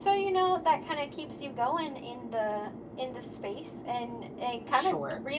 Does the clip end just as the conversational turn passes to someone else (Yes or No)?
No